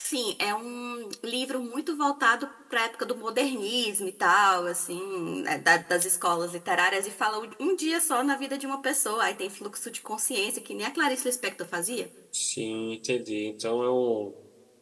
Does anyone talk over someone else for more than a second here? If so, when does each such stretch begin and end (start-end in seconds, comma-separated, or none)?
none